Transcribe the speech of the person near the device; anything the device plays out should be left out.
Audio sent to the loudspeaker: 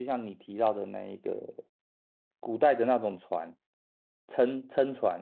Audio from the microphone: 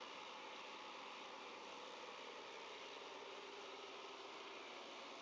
none

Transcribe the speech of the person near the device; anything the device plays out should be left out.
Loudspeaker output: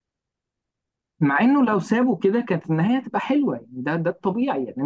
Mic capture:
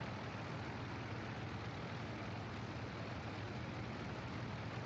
none

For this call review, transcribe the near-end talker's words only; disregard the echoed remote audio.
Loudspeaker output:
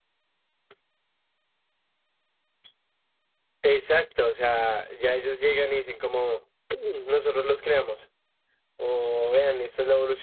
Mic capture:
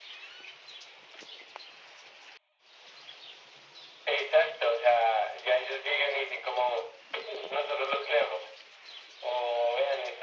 none

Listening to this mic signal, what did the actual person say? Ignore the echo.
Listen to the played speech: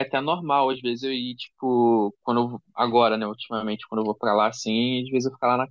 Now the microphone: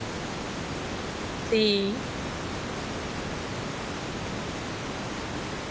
sim,

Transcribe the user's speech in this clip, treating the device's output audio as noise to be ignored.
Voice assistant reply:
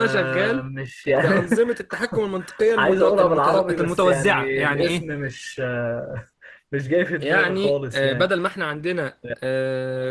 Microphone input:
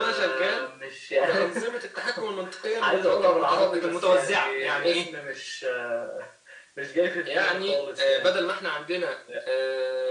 none

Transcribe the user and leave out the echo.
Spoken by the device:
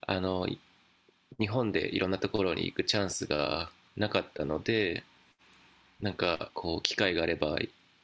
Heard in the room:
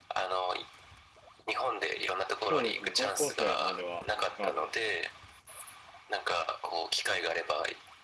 そうですね。高校生まではサッカー部でした。

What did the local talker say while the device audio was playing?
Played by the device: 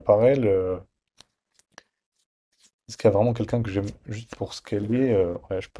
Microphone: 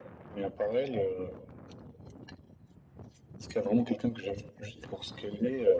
none

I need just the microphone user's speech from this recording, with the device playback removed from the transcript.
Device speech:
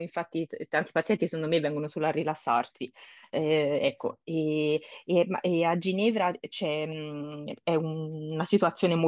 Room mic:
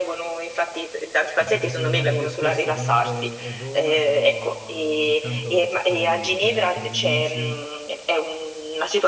cioè, il posto dove vado più spesso comunque è Roma, però ogni tanto vado a cercare di visitare anche degli amici,

